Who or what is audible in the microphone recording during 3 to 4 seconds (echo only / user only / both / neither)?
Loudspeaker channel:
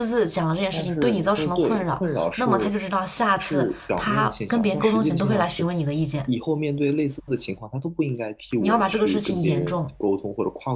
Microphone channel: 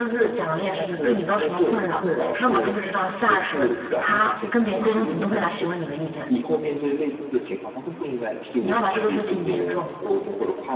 both